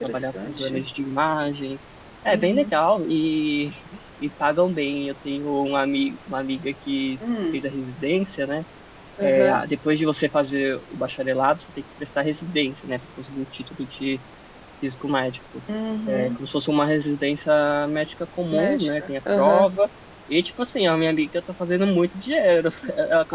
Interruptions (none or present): present